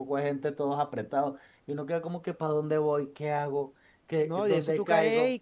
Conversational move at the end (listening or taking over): taking over